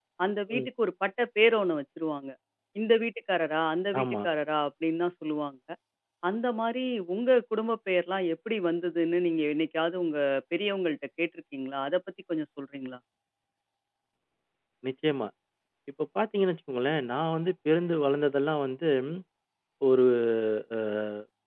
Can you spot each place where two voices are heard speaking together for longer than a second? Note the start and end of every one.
none

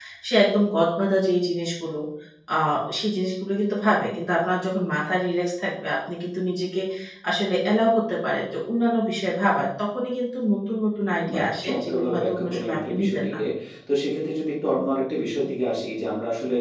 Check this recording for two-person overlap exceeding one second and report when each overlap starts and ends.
11.3-13.4

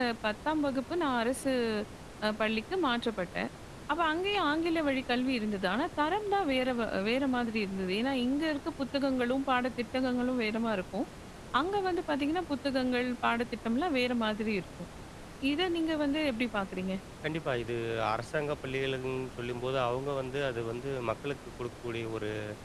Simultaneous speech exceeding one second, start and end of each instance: none

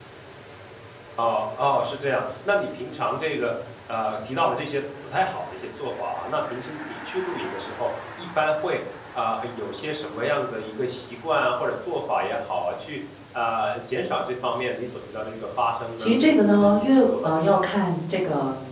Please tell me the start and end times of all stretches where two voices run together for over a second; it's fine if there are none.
16.0-17.6

